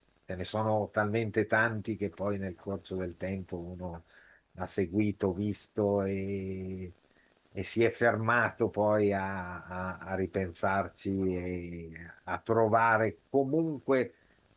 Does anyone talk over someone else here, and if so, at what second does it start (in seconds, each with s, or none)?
none